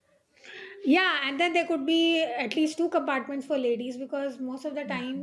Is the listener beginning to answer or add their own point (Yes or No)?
No